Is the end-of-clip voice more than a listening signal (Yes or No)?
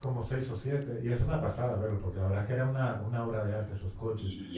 Yes